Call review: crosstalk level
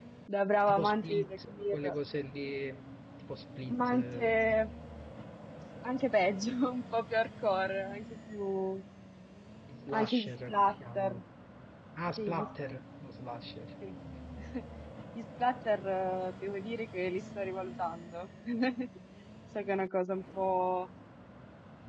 present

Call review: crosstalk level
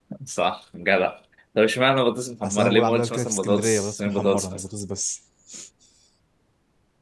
present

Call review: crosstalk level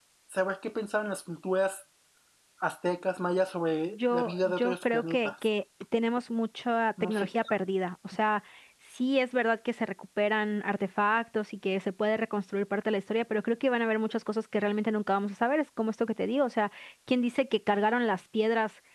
present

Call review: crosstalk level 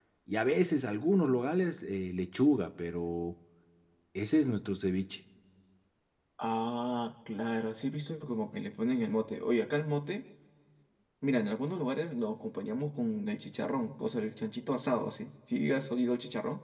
none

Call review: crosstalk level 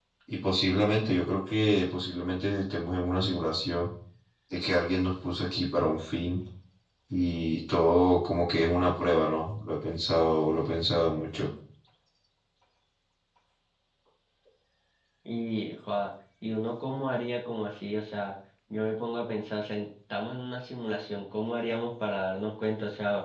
none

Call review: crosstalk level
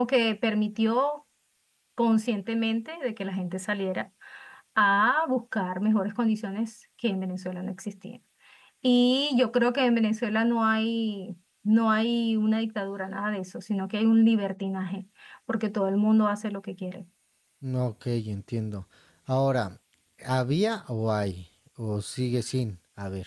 none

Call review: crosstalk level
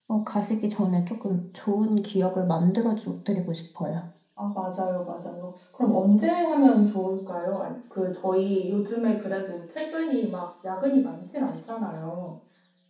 none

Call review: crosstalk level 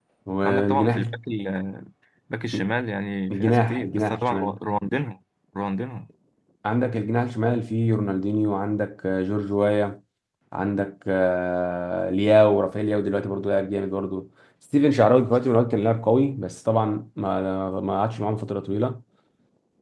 present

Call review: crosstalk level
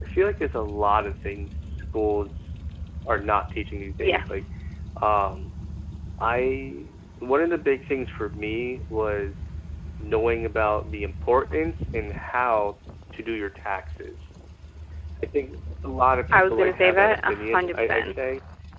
present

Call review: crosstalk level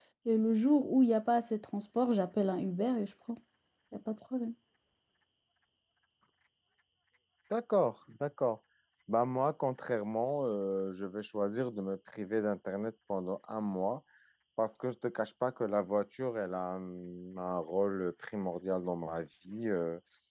none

